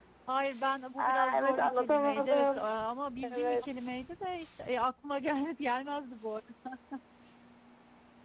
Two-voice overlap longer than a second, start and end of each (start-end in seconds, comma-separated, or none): 1.0-2.6